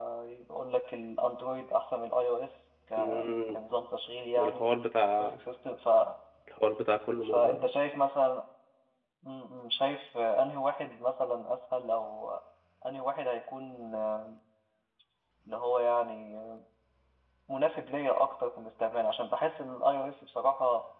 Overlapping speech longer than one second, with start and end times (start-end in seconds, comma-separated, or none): none